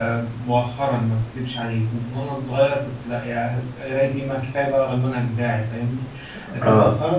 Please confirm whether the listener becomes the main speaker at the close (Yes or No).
No